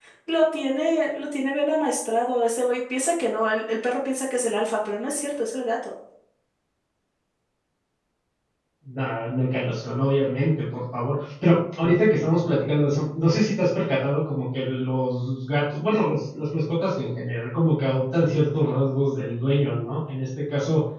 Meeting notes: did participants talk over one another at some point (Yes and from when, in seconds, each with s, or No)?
No